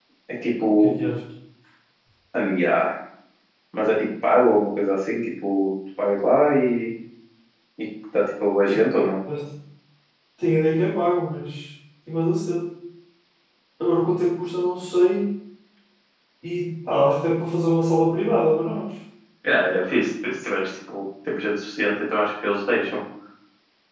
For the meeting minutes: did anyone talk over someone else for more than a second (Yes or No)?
No